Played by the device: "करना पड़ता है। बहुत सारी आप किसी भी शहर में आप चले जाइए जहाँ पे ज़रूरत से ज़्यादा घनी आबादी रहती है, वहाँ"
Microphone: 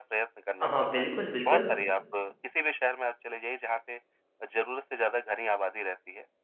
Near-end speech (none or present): present